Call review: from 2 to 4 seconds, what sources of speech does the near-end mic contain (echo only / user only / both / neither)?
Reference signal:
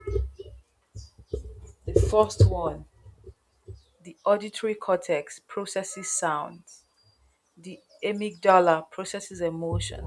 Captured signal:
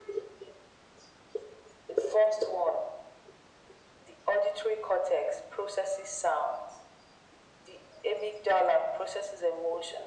echo only